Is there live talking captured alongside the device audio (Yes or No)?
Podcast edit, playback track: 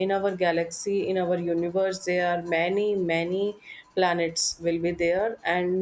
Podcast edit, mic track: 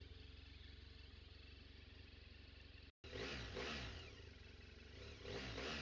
No